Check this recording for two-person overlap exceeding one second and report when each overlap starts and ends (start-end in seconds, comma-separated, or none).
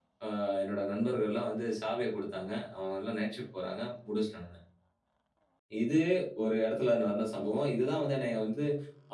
none